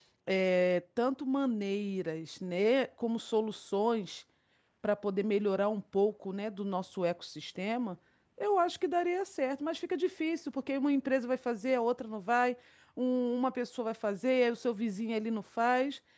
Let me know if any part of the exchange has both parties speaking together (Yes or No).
No